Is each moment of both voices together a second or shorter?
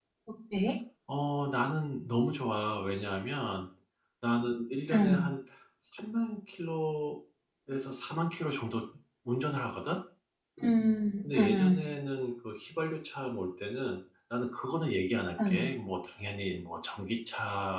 Yes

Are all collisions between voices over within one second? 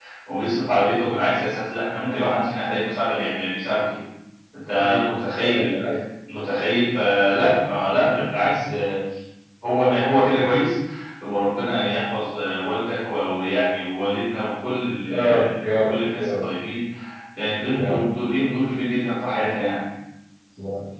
No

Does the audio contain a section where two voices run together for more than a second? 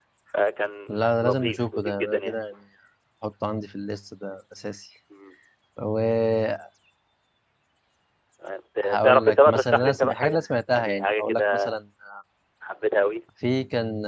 Yes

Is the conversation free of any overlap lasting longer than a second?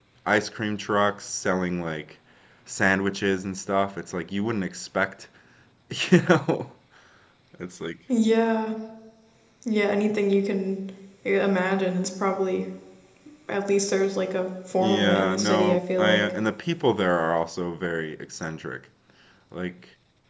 No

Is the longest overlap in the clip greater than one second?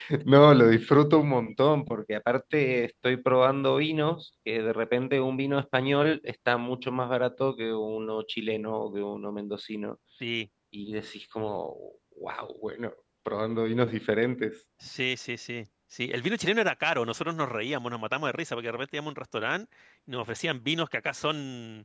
No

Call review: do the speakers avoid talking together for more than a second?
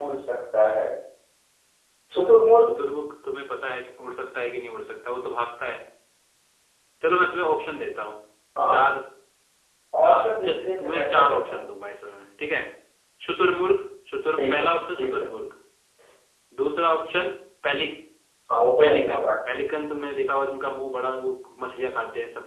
No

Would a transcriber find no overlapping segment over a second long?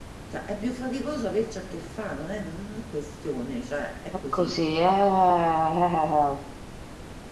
Yes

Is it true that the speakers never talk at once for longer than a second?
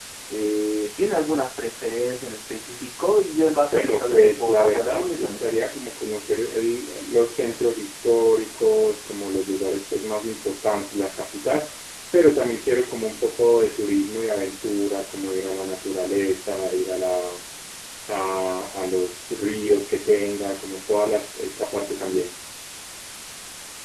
No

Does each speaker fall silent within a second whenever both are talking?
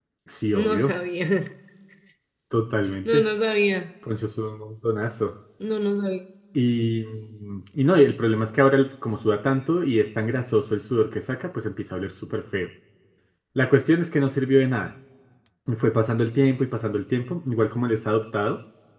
Yes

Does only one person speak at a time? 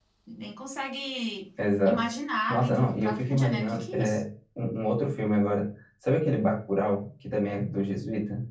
No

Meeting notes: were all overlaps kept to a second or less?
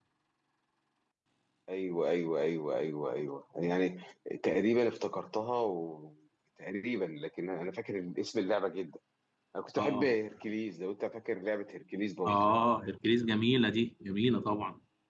Yes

